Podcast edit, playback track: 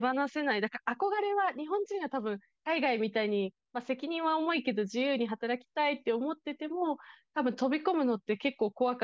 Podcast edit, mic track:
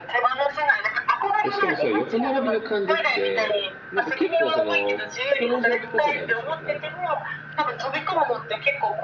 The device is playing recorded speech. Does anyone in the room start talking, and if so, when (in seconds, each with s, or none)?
1.4 s